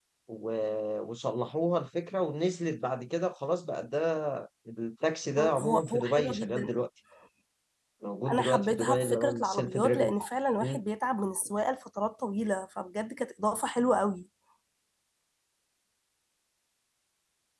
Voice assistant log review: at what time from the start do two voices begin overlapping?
5.4 s

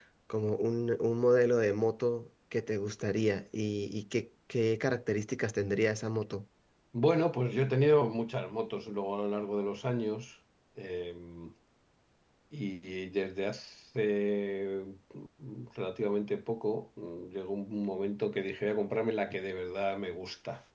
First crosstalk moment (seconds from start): none

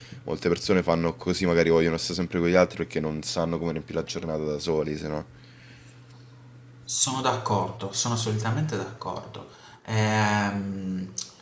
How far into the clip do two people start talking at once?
none

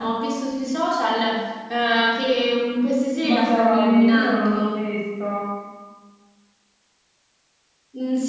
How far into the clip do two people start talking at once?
3.2 s

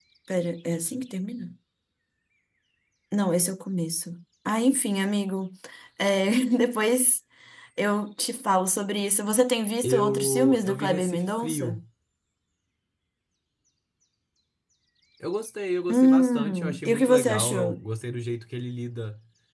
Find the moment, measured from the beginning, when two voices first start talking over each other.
9.8 s

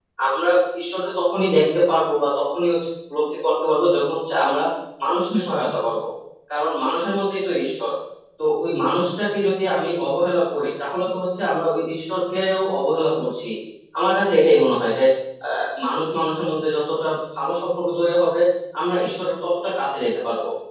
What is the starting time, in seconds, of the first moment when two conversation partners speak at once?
none

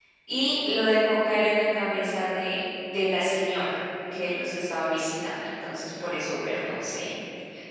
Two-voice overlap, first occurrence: none

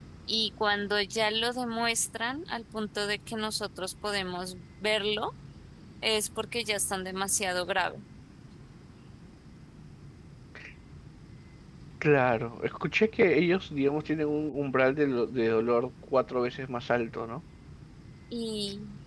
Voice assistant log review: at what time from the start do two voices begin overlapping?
none

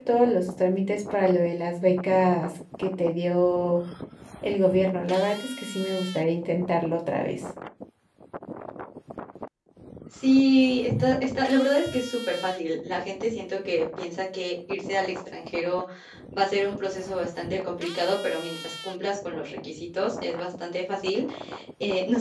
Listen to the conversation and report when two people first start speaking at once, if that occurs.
none

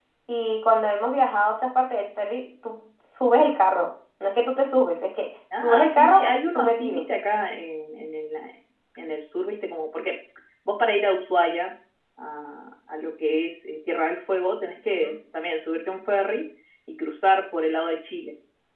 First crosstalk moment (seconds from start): 5.5 s

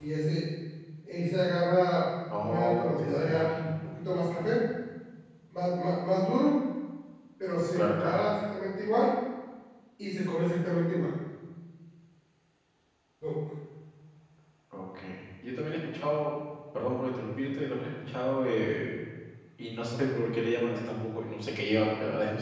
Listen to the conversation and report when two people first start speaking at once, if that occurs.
2.4 s

